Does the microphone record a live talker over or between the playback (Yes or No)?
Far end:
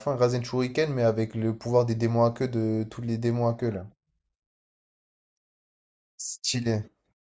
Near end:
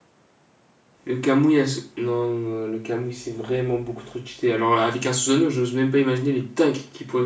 Yes